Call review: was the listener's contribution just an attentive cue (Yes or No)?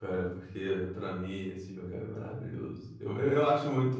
Yes